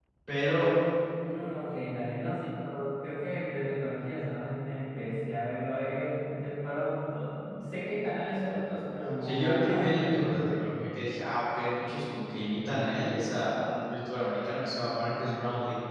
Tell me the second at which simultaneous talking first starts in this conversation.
9 s

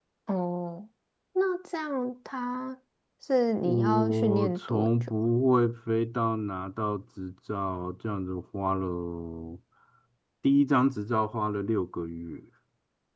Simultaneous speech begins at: 4 s

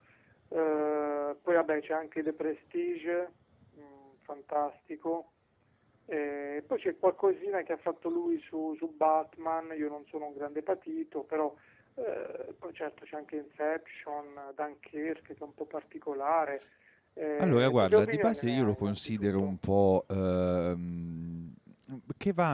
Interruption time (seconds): 17 s

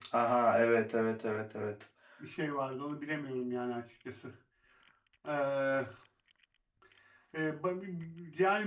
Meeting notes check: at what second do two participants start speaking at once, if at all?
none

